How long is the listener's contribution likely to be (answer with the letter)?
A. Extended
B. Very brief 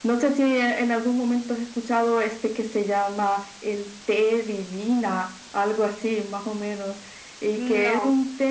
B